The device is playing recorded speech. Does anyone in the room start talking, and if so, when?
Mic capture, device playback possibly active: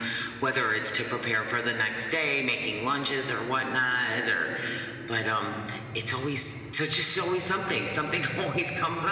none

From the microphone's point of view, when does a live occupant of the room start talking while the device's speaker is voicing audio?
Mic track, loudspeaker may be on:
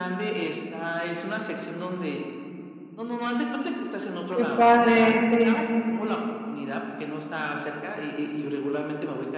4.3 s

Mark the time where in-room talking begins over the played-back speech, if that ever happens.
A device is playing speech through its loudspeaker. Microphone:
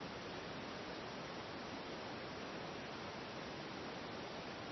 none

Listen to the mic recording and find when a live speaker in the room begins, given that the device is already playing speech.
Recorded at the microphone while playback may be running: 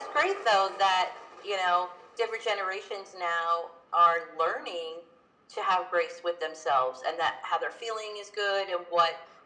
none

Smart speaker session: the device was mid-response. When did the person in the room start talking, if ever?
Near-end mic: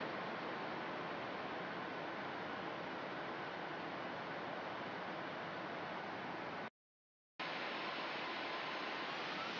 none

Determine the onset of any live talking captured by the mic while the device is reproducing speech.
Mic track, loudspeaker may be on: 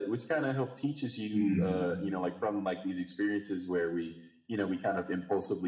1.3 s

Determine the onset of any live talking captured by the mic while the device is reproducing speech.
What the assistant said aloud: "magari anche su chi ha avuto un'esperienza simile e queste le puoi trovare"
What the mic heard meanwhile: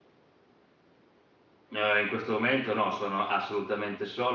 1.7 s

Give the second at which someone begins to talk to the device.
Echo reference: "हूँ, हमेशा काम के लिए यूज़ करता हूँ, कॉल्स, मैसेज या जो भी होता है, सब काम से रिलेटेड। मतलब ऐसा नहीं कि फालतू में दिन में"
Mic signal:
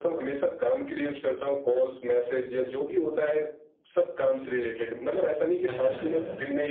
5.7 s

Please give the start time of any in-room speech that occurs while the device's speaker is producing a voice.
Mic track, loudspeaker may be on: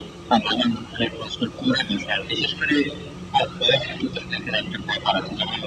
none

